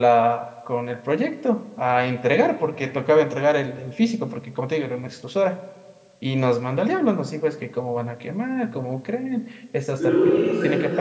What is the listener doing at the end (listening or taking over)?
taking over